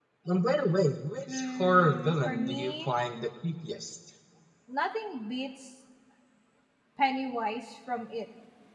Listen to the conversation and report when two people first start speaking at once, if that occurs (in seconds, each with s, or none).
1.3 s